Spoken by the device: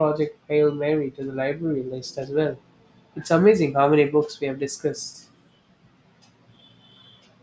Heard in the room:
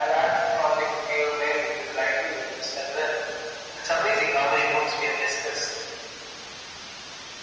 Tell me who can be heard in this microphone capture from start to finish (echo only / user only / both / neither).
echo only